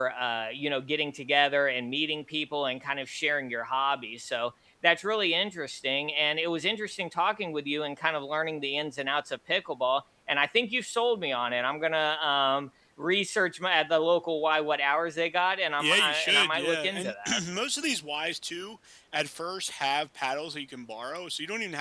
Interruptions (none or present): present